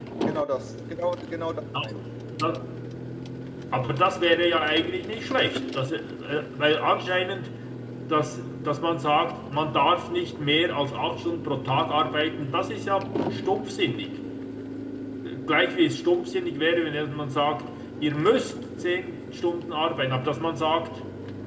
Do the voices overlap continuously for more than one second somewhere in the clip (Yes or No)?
No